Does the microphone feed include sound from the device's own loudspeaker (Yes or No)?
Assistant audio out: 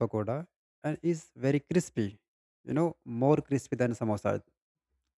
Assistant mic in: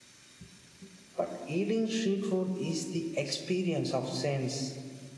No